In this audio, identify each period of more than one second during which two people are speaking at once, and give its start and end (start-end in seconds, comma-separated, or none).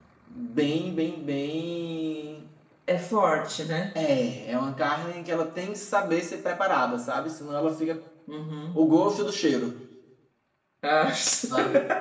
none